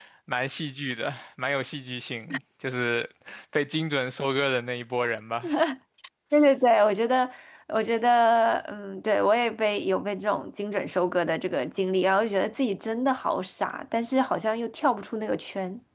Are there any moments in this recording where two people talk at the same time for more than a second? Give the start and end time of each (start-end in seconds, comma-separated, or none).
none